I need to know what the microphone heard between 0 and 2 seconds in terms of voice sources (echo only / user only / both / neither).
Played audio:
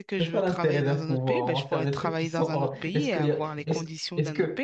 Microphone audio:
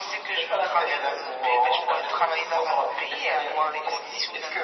echo only